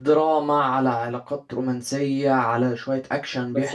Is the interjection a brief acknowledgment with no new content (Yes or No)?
No